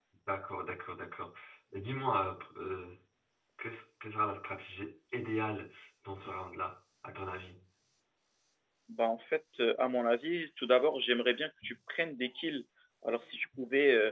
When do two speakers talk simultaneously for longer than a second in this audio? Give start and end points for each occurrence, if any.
none

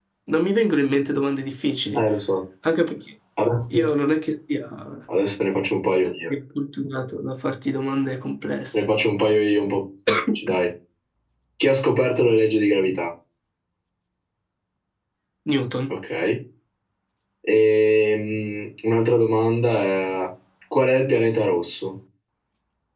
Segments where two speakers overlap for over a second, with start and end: none

